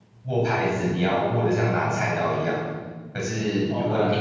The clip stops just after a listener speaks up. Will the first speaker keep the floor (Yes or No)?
Yes